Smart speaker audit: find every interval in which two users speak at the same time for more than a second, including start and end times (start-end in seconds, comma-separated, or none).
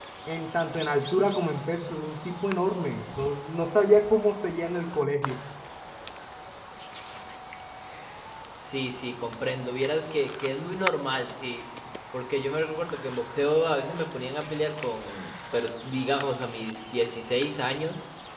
none